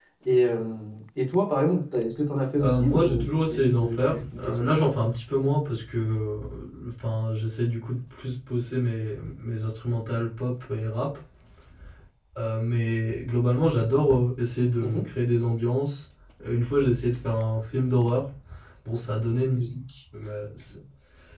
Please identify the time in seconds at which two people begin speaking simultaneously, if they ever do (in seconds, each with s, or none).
2.6 s